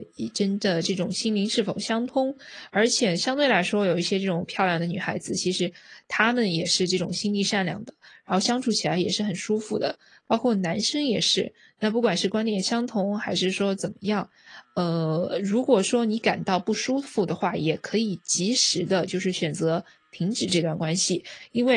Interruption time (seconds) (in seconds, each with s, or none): none